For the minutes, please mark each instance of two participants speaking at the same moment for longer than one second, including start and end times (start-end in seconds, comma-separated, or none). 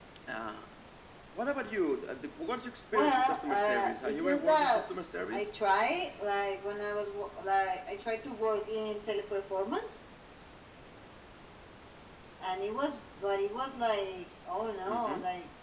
2.9-4.7